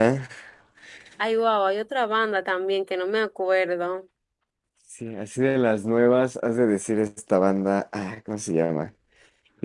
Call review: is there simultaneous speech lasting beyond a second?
No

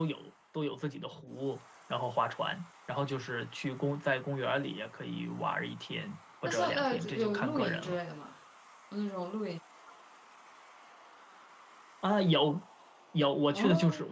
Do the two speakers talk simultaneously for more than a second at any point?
Yes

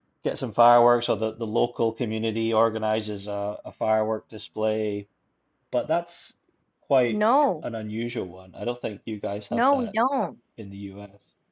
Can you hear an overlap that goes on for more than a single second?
No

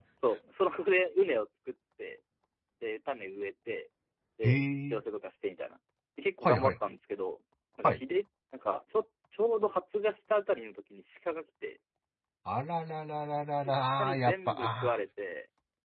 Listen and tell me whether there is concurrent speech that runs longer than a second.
Yes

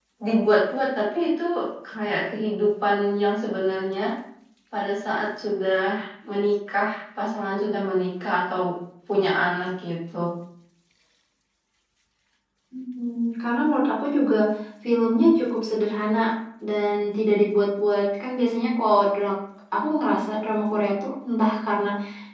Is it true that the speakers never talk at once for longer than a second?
Yes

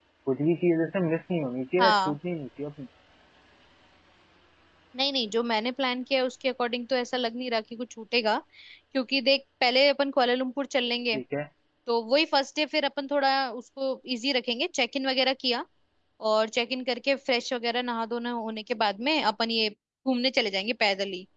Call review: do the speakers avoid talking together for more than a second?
Yes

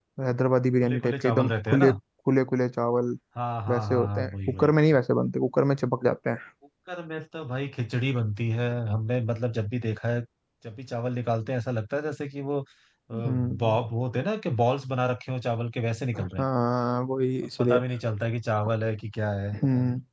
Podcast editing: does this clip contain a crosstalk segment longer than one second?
Yes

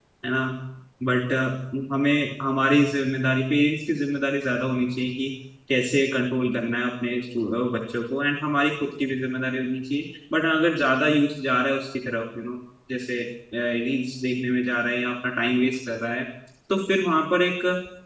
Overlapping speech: No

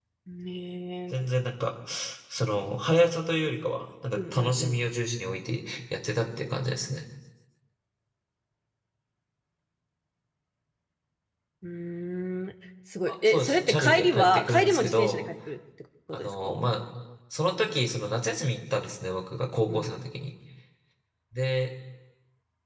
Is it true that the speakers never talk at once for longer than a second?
No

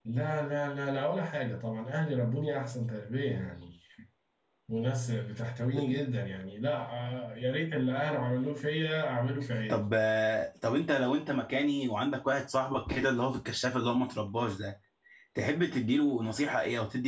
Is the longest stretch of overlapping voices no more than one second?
Yes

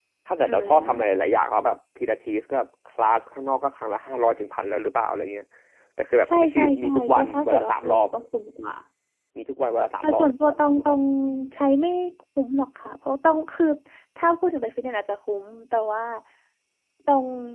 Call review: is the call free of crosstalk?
No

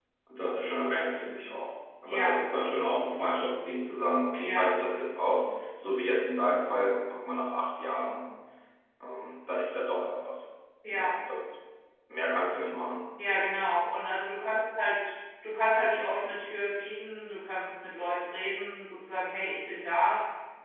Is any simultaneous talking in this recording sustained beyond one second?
No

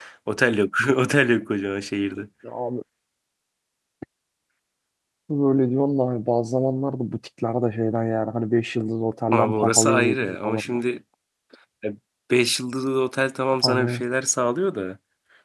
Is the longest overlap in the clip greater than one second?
Yes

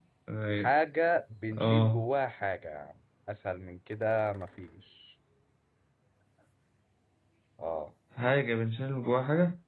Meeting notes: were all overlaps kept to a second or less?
Yes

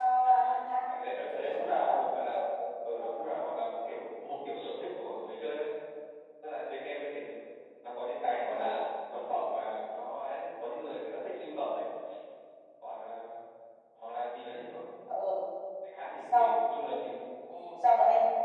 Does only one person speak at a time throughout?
No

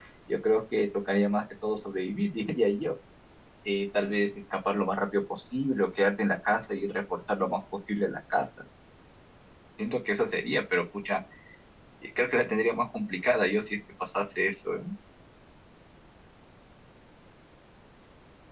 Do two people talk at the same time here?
No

